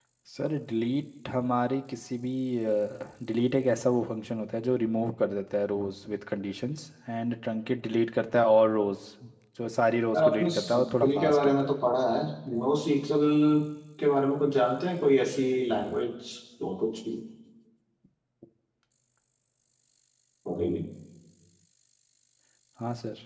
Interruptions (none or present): present